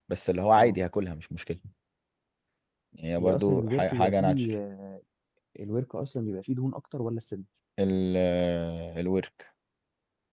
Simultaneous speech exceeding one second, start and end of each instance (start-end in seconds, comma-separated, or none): 3.2-4.4